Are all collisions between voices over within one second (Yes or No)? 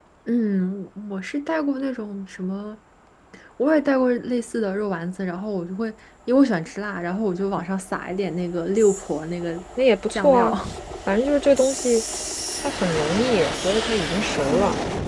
Yes